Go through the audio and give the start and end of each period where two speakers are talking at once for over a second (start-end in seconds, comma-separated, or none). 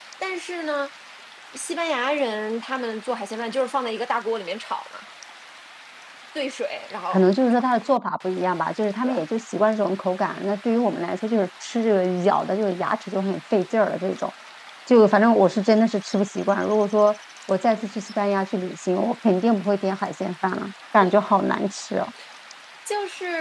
none